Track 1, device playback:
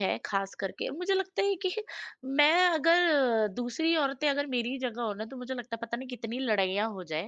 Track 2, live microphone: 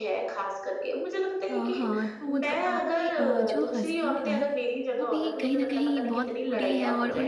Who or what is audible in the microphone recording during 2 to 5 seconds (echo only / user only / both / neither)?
both